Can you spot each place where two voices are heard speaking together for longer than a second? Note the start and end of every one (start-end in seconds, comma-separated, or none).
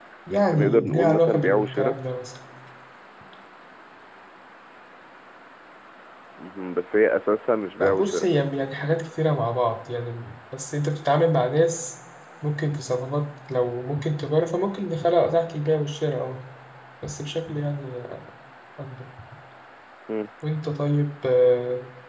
0.5-2.0